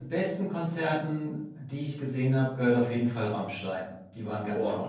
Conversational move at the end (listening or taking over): taking over